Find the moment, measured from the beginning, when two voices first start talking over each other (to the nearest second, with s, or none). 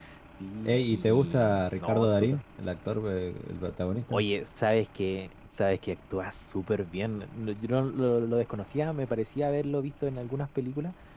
1 s